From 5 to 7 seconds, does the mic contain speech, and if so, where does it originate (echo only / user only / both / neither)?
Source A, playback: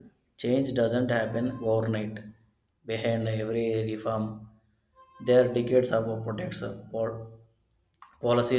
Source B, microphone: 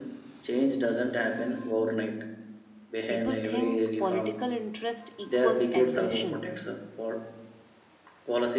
both